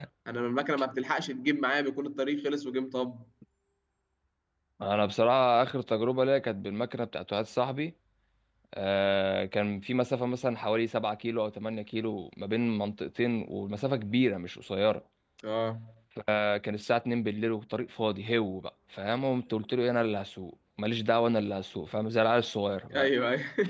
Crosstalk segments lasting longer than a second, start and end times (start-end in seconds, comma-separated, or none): none